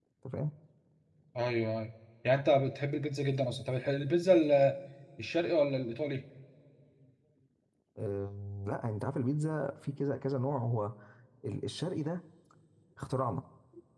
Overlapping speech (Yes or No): No